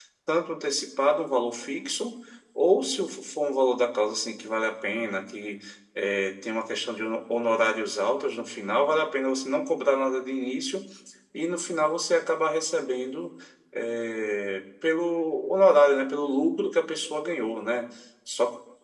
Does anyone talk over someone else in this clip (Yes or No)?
No